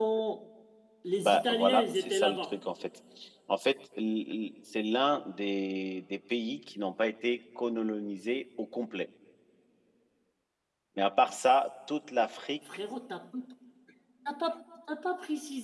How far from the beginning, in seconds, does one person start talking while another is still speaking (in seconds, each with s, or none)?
1.2 s